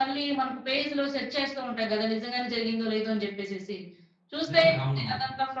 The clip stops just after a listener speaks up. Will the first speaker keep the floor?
Yes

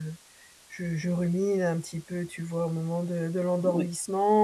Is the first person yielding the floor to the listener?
No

